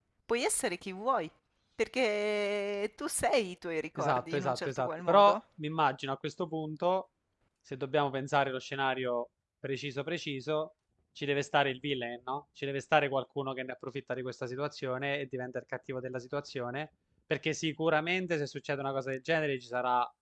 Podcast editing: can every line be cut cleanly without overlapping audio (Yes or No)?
No